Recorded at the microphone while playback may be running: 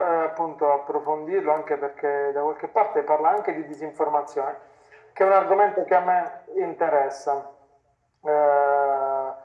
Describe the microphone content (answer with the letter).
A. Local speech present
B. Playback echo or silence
B